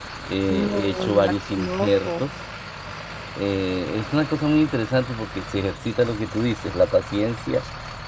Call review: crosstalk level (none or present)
present